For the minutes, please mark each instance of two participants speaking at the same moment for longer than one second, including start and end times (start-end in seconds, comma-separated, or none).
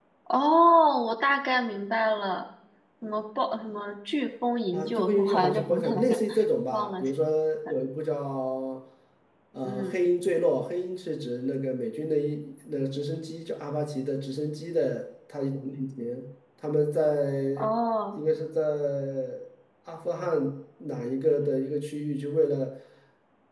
4.7-6.2